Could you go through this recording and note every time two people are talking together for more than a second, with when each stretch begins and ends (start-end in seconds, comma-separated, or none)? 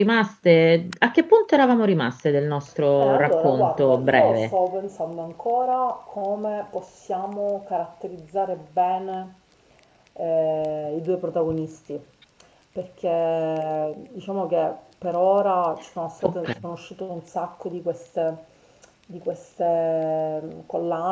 3.0-4.5